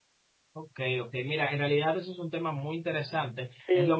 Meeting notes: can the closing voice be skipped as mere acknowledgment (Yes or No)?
Yes